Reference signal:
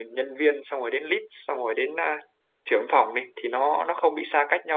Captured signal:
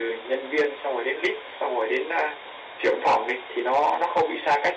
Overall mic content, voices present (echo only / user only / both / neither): echo only